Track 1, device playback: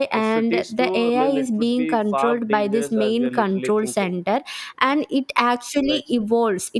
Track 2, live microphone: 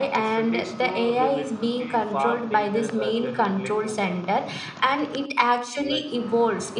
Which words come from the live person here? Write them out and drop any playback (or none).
none